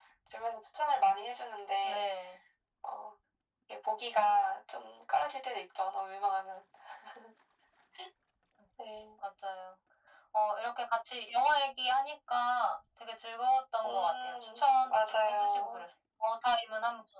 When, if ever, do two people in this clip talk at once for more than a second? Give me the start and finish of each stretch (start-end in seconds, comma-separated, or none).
13.8-15.8